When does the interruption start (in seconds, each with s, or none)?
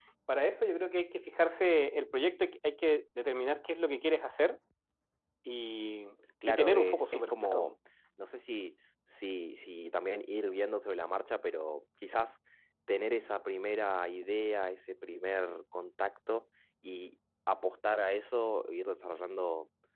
6.5 s